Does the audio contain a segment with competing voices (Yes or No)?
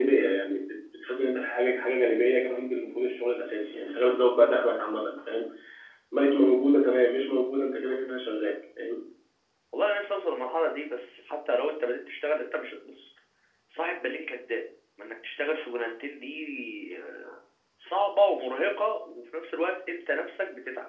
No